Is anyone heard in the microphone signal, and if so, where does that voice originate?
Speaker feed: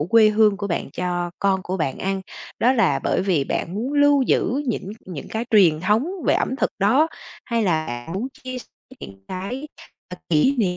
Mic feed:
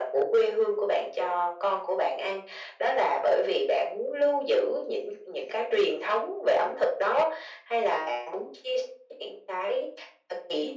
echo only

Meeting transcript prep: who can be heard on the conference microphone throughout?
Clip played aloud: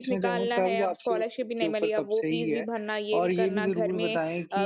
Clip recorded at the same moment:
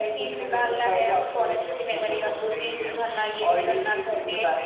echo only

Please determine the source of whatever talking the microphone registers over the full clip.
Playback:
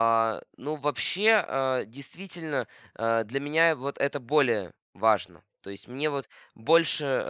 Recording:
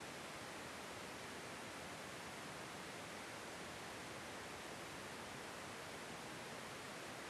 neither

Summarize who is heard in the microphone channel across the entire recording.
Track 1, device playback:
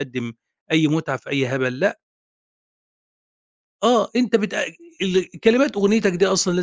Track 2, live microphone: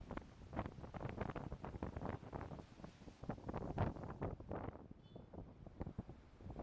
neither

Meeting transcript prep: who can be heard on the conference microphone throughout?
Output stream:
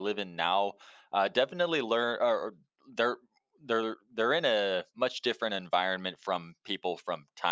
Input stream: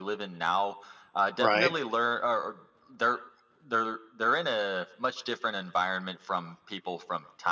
both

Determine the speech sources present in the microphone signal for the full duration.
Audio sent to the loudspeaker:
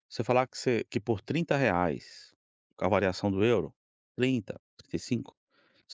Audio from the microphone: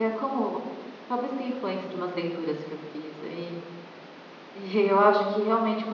user only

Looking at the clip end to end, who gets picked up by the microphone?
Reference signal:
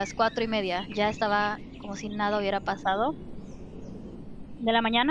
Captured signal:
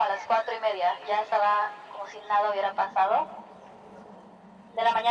echo only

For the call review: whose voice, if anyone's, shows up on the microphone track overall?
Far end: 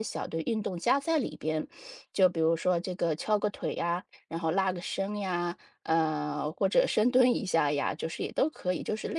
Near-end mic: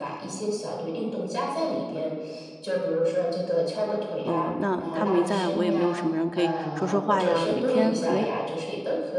both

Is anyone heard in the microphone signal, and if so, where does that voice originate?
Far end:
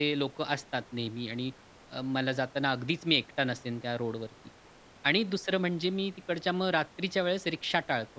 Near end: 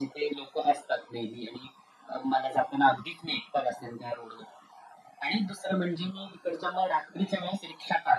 echo only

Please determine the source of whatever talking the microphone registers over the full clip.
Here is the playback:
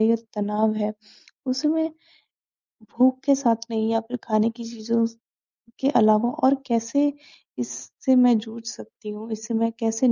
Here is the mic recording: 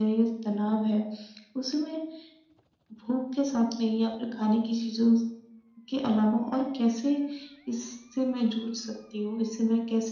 echo only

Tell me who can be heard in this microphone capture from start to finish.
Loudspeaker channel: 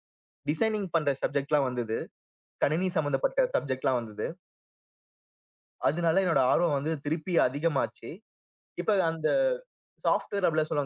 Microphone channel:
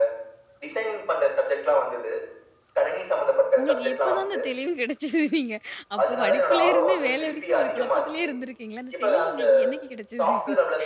both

